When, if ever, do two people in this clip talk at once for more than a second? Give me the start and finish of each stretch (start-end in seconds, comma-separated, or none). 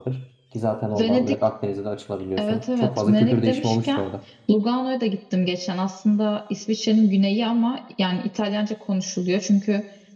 2.4-4.0